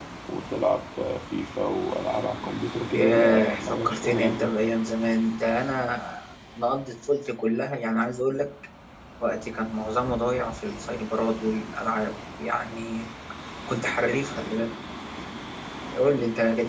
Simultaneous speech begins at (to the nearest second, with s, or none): 3 s